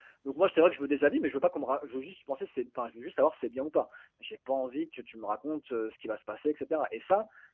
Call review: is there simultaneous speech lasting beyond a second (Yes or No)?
No